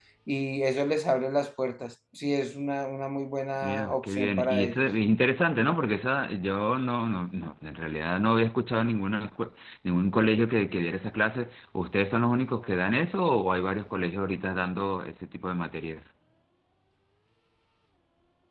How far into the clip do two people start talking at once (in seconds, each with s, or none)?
3.6 s